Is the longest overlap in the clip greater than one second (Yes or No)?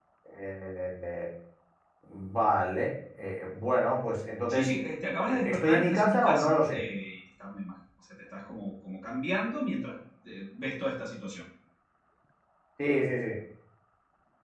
Yes